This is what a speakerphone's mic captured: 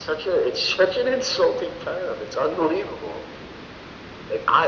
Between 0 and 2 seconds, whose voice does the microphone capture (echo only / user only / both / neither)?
echo only